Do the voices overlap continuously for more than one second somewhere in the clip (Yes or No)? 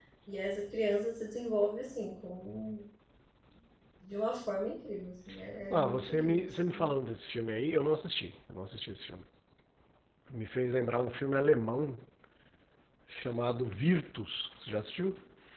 Yes